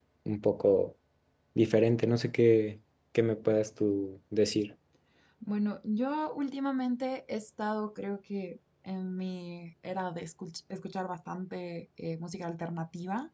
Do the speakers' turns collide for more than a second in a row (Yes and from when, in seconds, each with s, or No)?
No